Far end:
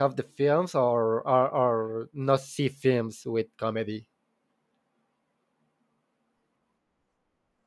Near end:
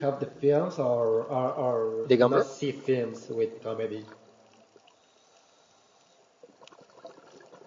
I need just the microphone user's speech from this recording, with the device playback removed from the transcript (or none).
The Gambler.